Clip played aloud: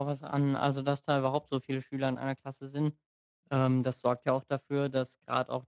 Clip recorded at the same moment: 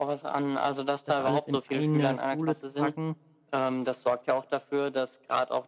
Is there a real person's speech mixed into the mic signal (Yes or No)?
Yes